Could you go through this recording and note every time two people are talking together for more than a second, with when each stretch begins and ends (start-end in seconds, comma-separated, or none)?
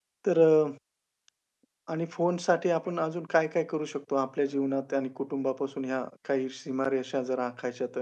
none